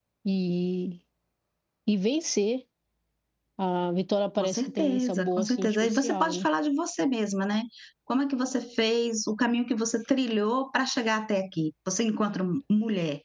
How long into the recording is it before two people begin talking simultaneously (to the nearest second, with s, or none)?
4 s